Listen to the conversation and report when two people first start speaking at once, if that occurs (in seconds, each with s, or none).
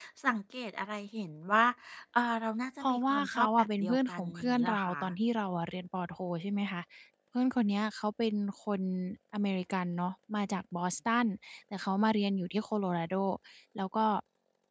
2.8 s